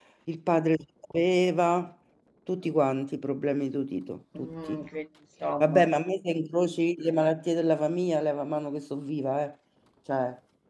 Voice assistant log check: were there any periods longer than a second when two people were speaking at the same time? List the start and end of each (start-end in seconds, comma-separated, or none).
none